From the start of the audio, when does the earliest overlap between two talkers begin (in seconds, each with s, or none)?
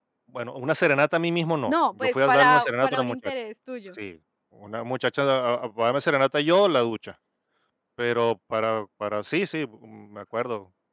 1.7 s